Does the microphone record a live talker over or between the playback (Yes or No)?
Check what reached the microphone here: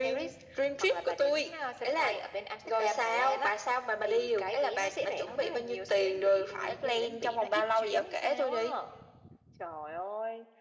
No